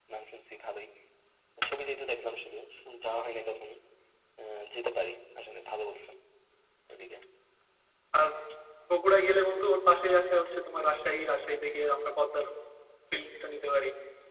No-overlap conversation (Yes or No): Yes